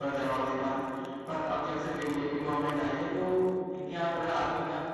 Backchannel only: Yes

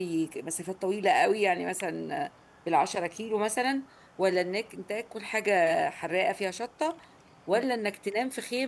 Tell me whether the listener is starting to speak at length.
No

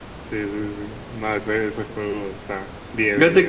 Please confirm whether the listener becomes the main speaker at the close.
Yes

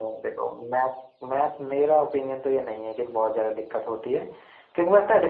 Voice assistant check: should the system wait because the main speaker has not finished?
Yes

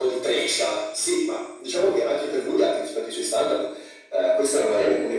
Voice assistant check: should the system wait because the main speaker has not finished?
Yes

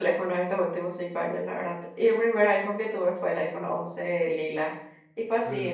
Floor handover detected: No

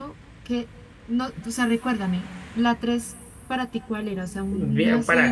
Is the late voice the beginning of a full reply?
Yes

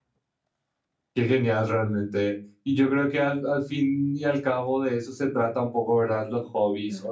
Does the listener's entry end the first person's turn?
No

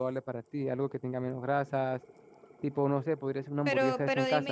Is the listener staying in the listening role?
No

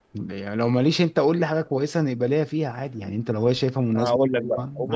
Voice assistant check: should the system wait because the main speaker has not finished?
No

